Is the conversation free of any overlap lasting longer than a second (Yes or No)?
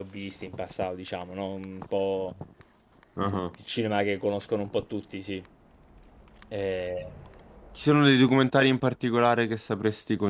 Yes